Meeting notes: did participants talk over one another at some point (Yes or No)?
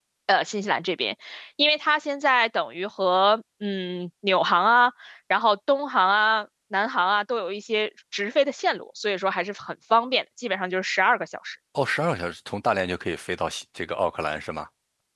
No